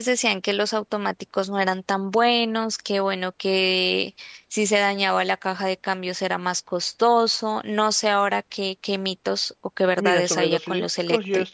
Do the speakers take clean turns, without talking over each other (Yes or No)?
No